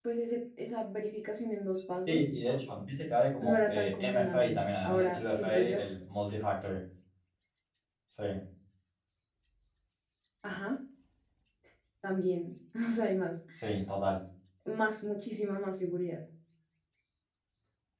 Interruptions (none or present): present